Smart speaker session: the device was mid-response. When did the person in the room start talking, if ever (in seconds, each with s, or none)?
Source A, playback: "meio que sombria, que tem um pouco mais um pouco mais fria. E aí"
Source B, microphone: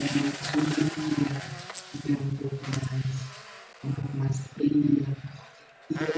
none